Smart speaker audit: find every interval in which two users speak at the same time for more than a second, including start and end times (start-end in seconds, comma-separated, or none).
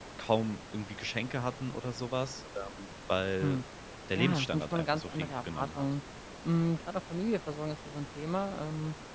4.2-5.9